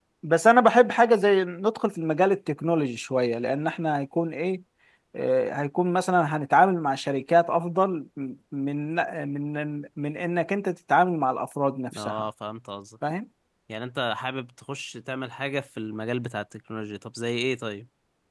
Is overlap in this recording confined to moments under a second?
Yes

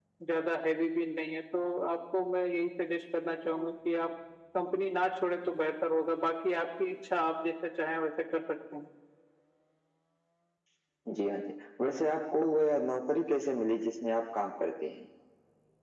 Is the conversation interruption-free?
Yes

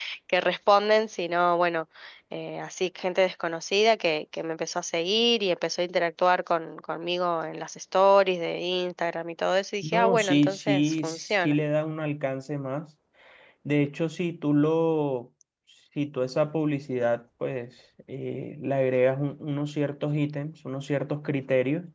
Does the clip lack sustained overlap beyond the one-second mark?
No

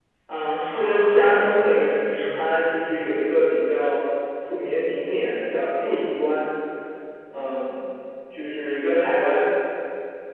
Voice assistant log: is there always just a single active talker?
No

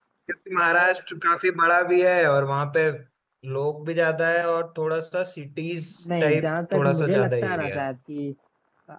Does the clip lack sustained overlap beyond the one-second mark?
No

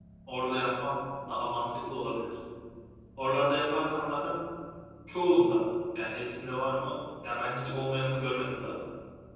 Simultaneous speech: No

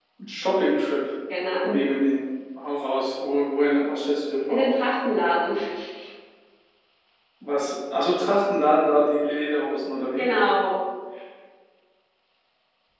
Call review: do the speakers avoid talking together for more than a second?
Yes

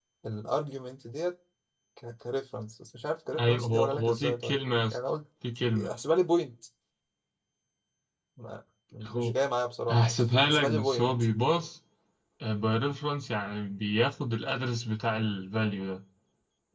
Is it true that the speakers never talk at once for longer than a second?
No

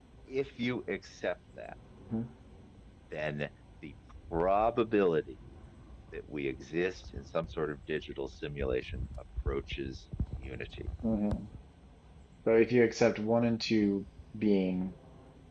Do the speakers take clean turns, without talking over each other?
Yes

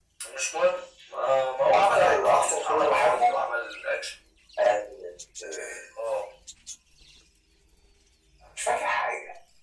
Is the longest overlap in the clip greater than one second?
Yes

